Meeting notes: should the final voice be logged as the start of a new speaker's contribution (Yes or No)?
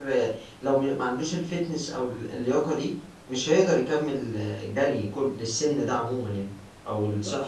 Yes